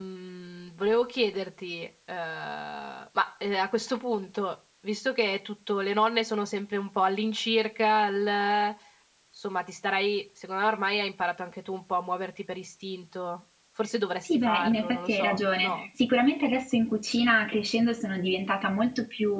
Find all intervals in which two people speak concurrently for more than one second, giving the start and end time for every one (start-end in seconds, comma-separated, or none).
14.2-15.9